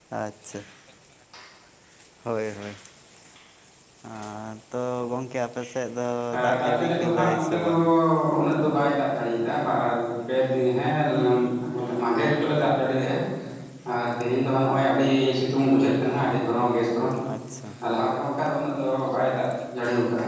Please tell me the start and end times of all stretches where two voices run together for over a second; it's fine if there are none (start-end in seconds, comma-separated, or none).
6.3-7.7